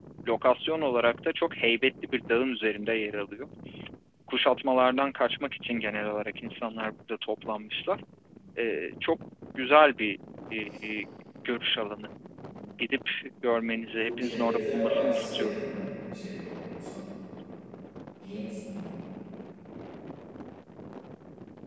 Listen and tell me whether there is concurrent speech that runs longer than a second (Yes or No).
Yes